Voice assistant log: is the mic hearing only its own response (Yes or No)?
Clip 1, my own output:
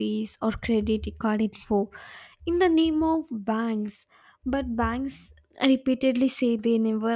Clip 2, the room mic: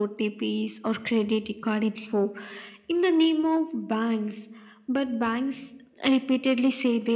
Yes